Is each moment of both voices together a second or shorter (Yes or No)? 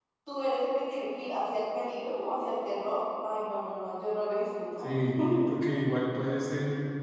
Yes